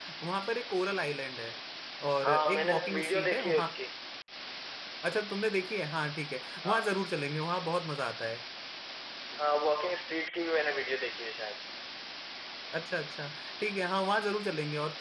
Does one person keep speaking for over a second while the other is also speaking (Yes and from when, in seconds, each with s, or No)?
Yes, from 2.2 s